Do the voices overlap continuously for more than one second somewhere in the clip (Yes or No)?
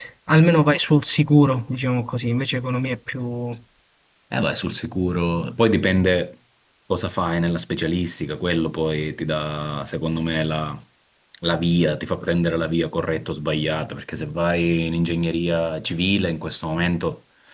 No